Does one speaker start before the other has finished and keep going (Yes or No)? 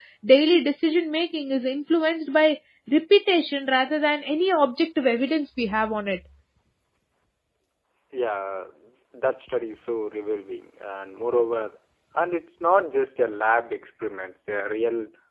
No